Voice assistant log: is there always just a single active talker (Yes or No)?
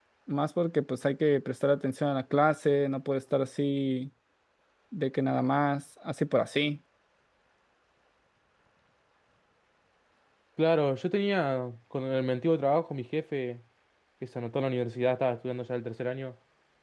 Yes